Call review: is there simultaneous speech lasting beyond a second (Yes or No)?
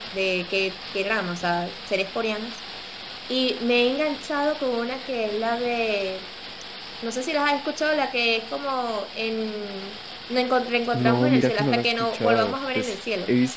Yes